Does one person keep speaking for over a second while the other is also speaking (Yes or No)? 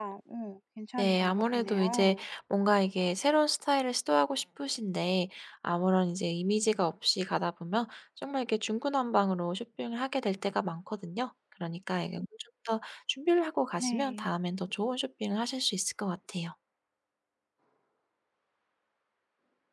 Yes